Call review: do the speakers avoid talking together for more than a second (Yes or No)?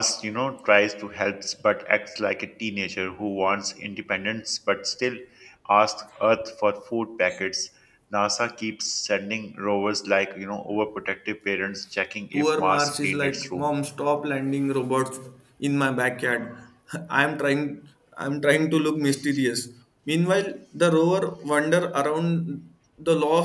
No